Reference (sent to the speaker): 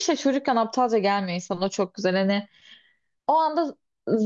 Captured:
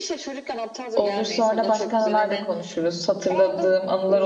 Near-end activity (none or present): present